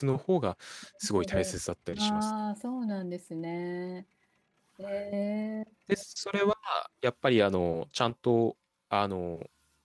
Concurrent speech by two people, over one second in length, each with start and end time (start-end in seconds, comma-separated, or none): none